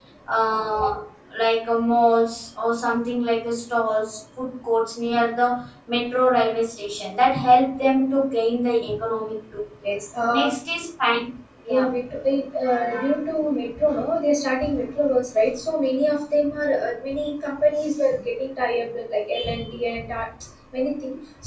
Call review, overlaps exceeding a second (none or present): none